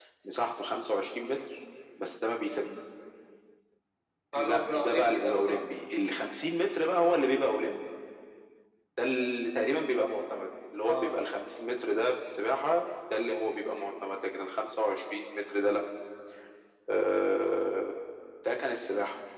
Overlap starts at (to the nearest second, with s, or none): 4 s